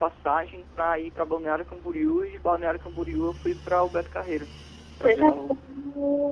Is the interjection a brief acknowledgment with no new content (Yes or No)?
No